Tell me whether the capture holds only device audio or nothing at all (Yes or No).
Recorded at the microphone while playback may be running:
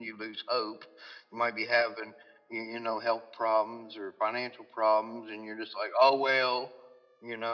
Yes